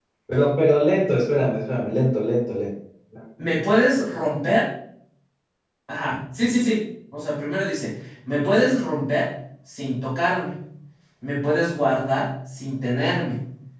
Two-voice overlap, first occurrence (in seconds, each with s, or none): none